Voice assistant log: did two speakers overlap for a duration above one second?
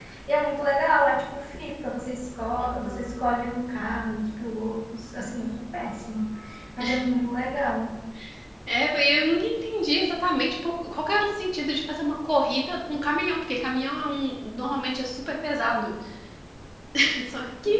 No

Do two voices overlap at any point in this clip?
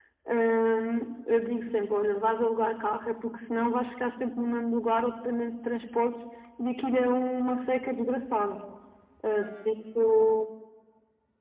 No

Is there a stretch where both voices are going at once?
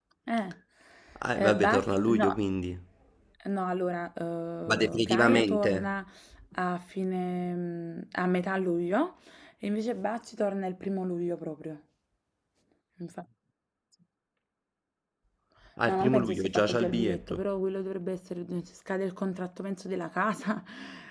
Yes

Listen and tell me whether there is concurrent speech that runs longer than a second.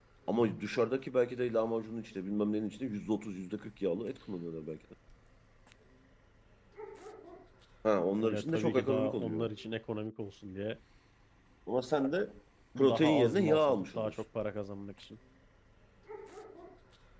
Yes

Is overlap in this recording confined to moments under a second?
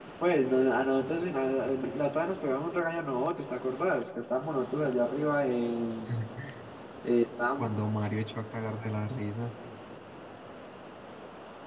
Yes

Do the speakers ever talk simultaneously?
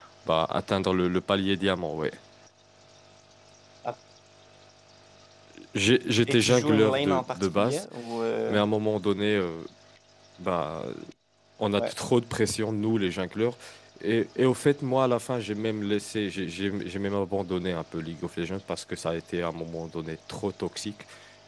Yes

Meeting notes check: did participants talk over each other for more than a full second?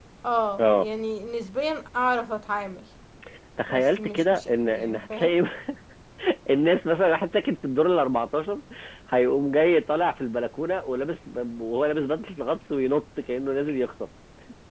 Yes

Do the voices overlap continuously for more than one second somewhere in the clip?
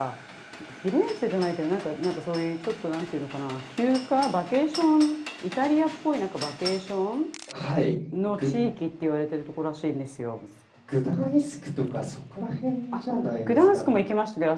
No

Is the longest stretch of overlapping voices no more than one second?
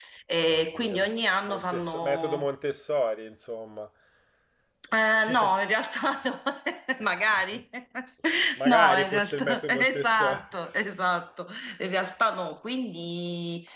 No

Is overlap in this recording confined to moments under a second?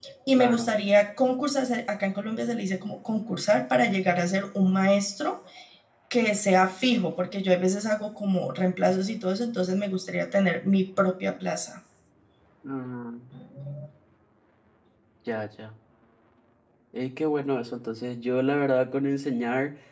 Yes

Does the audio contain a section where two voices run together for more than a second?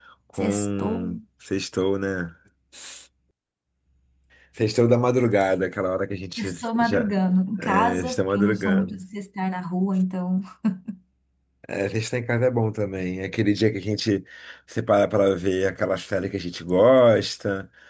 Yes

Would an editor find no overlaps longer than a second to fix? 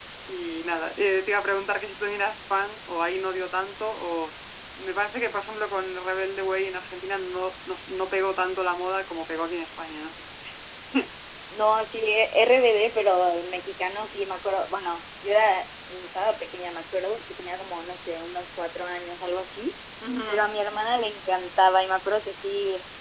Yes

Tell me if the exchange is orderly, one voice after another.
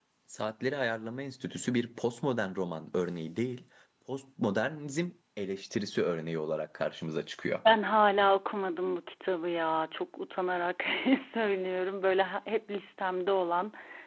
Yes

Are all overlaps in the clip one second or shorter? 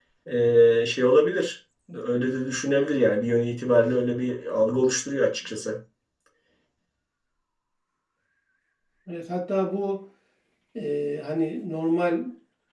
Yes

